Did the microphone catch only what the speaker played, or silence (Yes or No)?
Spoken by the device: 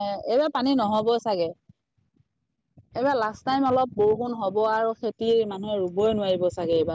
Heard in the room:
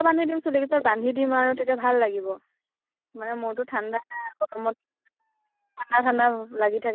No